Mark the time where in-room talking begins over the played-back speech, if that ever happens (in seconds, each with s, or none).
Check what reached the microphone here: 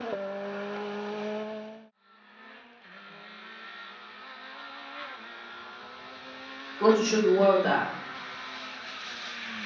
6.7 s